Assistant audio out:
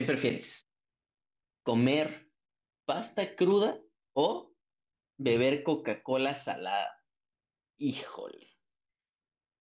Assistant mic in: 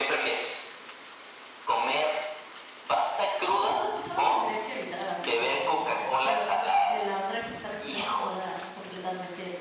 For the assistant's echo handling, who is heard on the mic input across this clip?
both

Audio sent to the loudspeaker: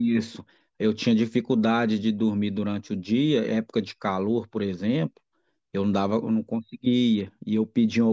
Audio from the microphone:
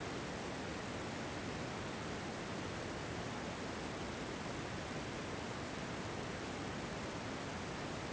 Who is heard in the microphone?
neither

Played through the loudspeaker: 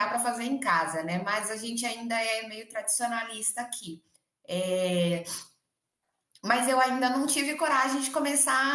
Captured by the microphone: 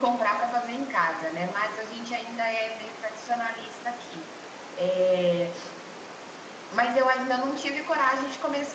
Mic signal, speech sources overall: echo only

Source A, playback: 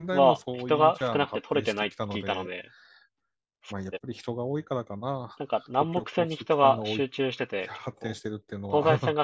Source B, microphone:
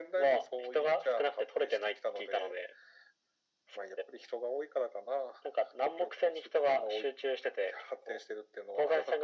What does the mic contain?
echo only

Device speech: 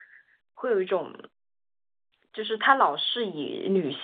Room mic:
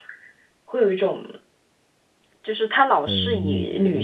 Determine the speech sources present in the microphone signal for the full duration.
both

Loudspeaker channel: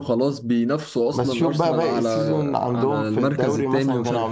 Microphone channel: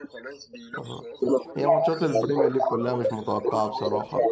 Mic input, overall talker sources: both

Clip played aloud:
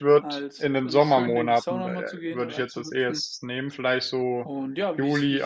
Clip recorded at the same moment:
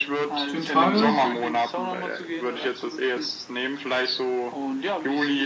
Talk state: both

